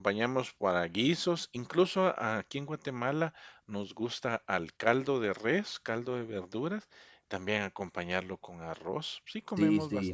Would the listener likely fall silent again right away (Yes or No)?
No